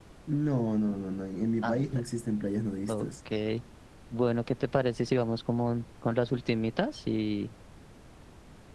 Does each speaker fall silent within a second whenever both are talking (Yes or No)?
Yes